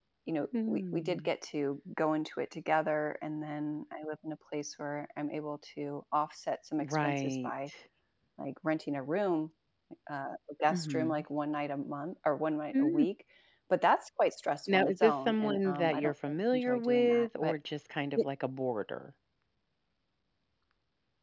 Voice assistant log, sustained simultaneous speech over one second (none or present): present